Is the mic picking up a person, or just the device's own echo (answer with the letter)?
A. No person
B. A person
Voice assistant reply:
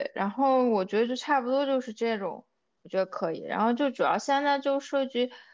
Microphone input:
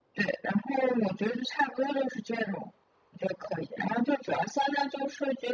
A